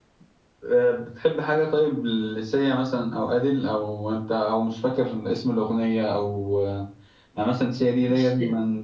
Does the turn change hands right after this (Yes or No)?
No